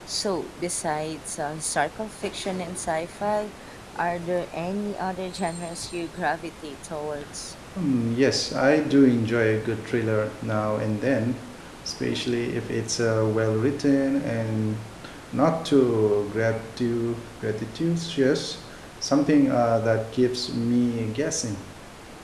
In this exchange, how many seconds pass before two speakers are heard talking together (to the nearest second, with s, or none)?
none